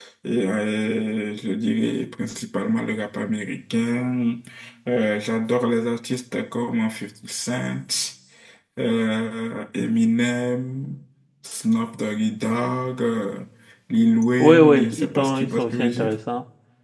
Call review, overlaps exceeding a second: present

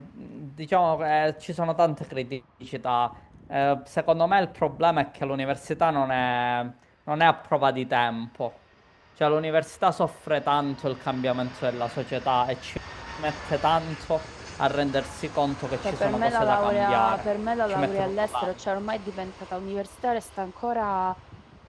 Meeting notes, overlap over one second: present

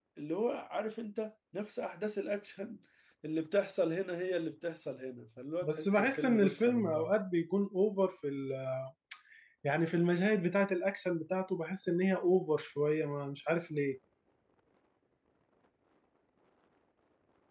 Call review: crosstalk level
present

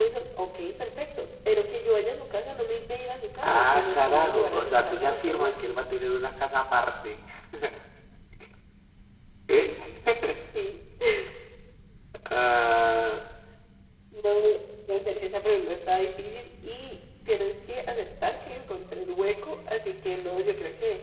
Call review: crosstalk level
present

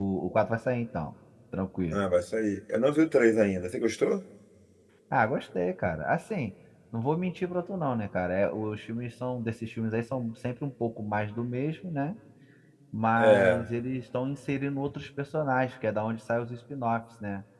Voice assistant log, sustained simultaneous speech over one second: none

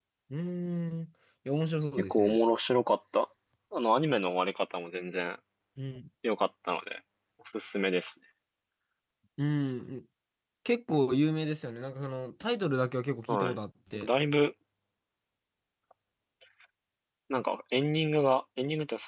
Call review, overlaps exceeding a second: none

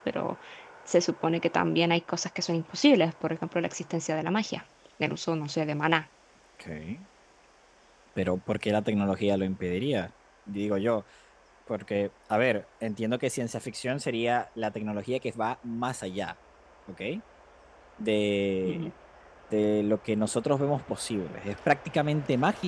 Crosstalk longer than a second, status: none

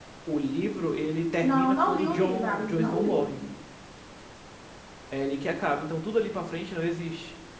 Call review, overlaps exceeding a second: present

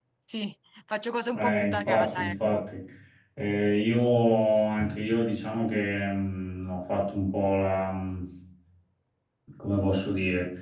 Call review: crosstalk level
present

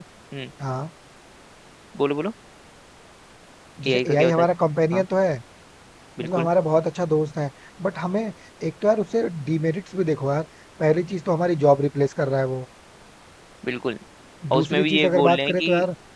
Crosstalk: present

